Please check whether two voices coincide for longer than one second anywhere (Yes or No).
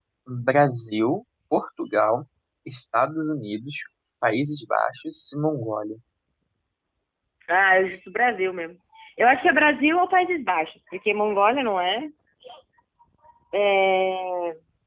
No